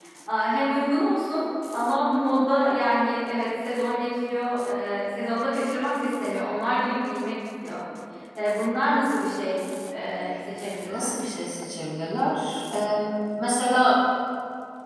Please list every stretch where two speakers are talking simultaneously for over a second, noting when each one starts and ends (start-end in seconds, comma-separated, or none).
none